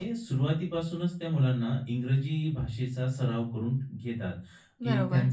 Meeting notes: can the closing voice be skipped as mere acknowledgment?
Yes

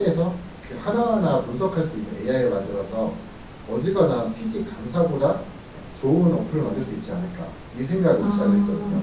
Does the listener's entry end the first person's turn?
Yes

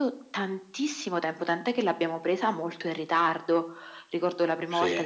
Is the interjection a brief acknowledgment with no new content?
Yes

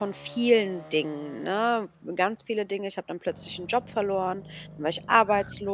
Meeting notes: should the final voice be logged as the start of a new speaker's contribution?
No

